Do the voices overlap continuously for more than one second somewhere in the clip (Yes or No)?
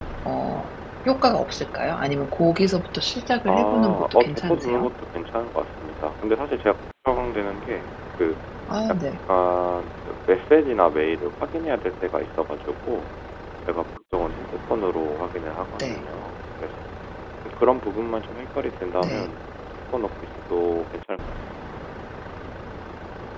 Yes